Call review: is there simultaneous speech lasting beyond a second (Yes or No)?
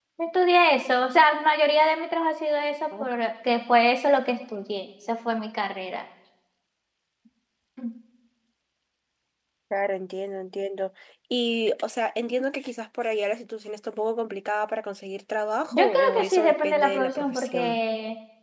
Yes